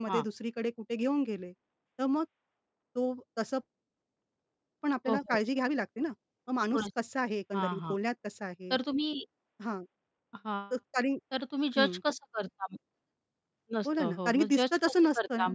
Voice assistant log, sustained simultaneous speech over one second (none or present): present